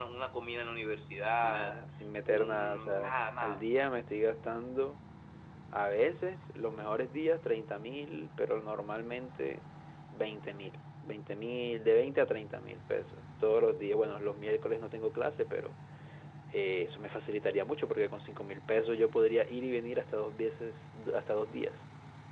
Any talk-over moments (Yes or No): Yes